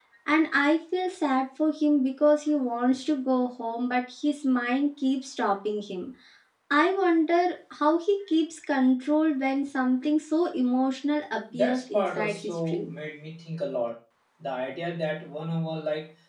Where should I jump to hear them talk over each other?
11.5 s

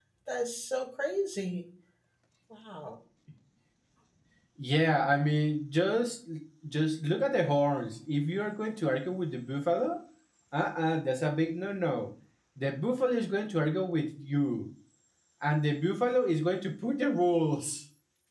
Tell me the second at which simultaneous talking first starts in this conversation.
none

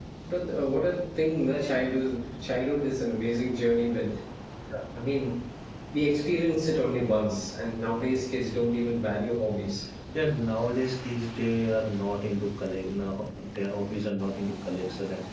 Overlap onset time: none

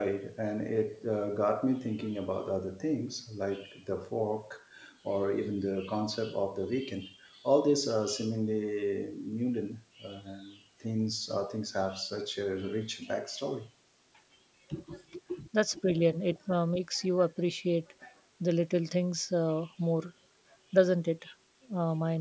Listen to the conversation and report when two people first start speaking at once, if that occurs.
none

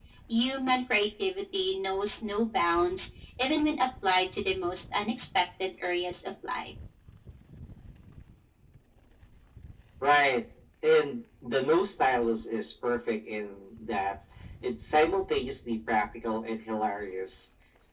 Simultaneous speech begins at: none

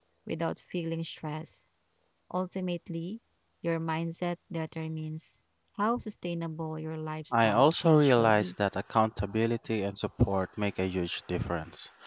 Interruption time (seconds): 7.3 s

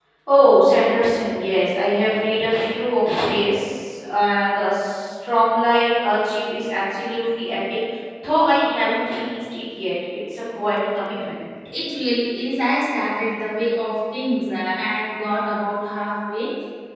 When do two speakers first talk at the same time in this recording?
none

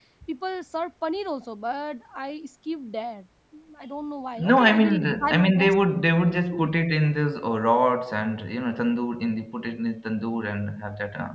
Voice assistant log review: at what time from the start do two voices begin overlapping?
4.5 s

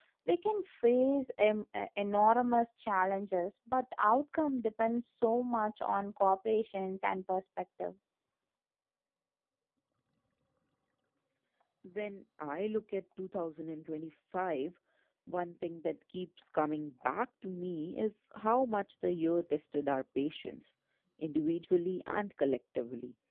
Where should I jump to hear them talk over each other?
none

